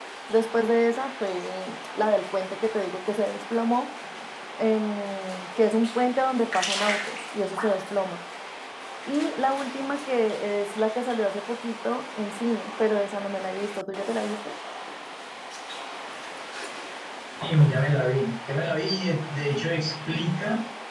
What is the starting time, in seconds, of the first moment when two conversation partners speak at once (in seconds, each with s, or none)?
none